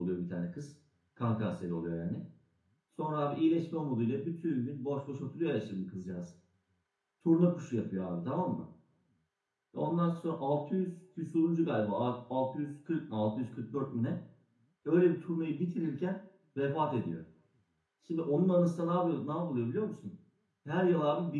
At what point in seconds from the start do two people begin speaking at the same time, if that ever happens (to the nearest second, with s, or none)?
none